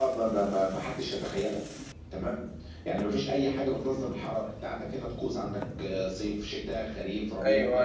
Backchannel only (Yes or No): No